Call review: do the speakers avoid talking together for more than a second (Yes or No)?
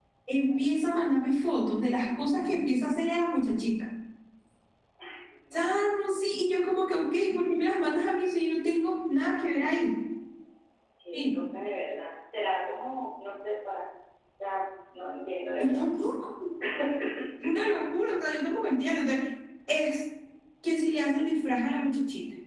Yes